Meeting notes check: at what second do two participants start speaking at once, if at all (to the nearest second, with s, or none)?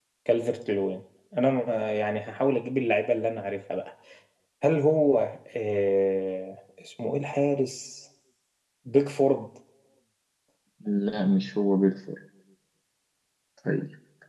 none